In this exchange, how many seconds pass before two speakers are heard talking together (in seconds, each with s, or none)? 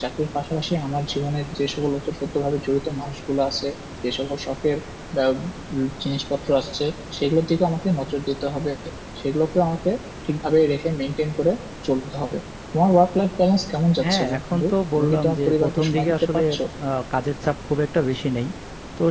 14.0 s